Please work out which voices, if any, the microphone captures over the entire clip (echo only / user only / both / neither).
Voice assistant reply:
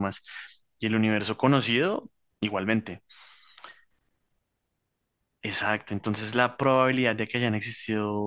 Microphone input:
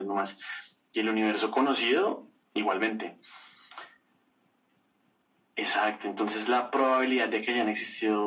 echo only